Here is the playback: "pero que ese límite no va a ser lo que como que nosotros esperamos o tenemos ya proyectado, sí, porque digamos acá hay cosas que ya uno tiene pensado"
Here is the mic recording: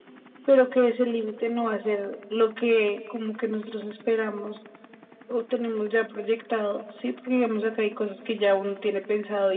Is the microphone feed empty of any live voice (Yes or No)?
Yes